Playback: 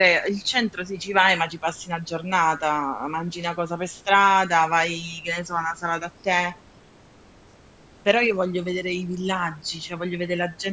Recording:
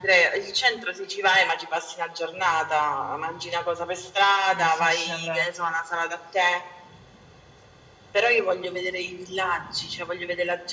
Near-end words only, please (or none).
Mi affascina proprio.